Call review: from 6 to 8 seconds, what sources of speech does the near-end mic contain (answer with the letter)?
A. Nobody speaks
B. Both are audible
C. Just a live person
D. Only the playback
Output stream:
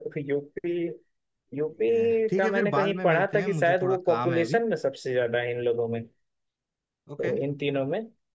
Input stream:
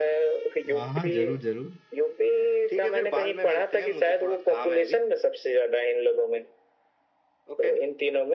D